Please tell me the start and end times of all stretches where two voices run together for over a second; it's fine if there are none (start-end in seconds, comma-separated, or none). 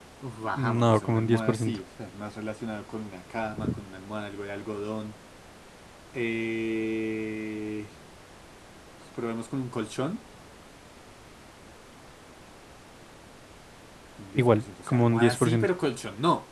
0.5-1.8, 14.4-15.7